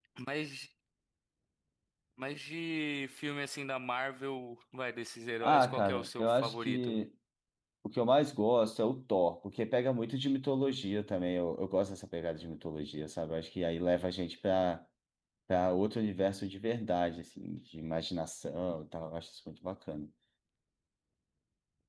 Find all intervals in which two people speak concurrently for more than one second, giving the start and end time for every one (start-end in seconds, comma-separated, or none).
5.4-7.0